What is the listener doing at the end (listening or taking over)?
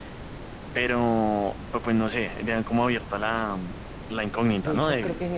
taking over